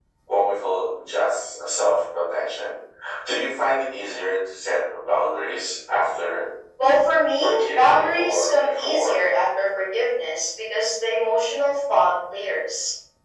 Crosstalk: present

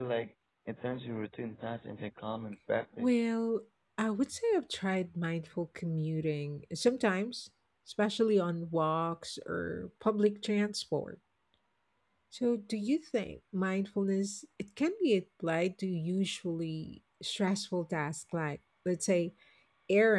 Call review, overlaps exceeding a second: none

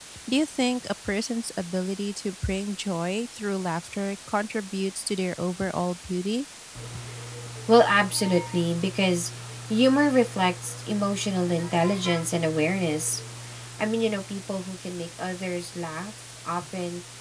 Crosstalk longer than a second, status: none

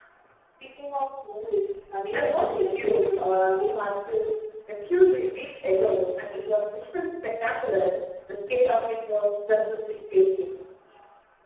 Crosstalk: present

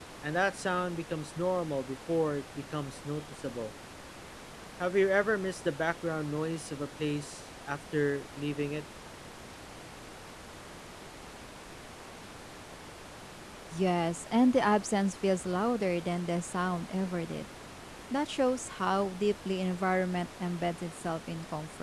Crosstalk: none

